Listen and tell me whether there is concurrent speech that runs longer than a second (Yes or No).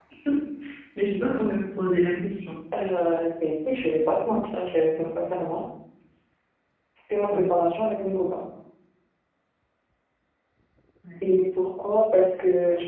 No